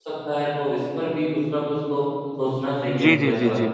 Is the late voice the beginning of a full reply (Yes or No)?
Yes